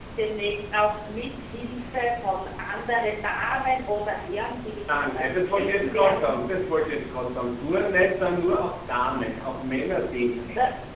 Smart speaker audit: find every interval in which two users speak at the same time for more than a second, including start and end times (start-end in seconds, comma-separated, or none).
4.9-6.4